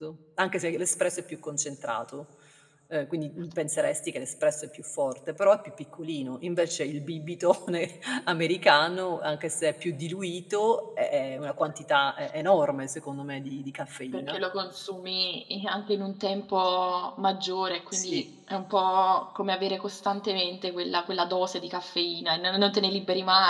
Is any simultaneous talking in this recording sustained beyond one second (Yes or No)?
No